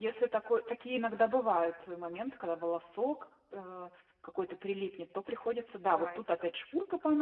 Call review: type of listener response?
listening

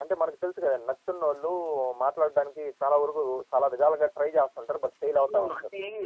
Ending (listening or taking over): taking over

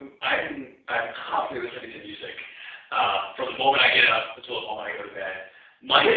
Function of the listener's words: listening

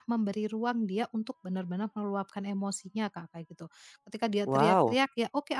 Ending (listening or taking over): listening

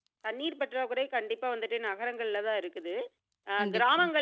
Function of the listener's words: listening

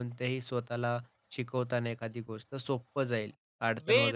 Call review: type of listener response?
taking over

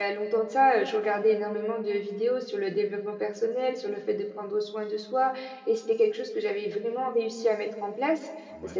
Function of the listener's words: listening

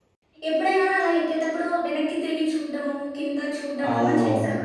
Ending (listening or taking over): taking over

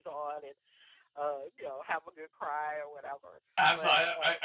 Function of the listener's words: taking over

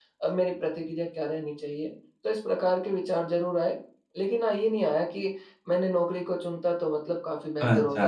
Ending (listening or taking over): listening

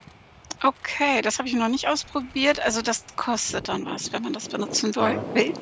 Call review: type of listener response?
taking over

